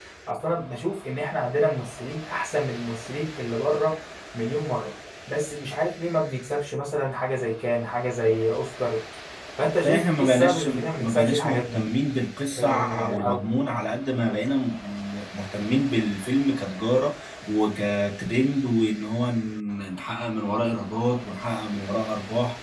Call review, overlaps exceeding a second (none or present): present